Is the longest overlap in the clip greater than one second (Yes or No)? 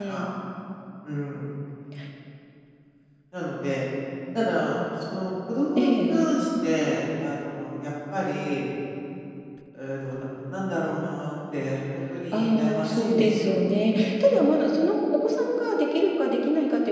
Yes